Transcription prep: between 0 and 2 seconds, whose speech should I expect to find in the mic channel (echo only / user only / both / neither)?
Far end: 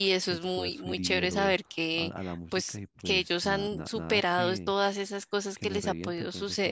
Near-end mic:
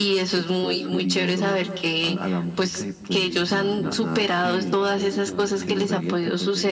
echo only